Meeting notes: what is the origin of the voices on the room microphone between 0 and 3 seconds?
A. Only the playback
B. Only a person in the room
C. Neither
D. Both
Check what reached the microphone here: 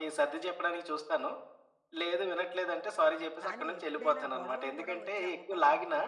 A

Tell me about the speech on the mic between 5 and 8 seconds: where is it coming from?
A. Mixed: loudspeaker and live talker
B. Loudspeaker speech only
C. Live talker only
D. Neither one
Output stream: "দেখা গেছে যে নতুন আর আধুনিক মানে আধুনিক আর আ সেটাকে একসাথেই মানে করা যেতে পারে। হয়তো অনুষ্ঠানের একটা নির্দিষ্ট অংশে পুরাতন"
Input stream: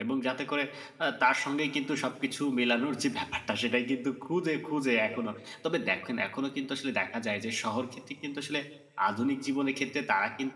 C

